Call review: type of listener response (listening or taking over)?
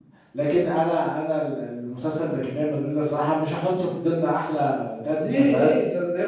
taking over